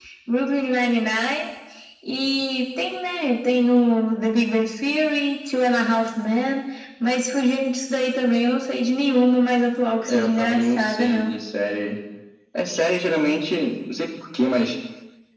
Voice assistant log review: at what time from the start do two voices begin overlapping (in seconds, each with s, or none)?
10.1 s